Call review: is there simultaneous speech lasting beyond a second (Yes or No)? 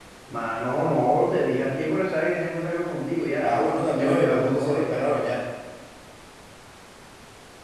Yes